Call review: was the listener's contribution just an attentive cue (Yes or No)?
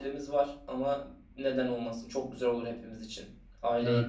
No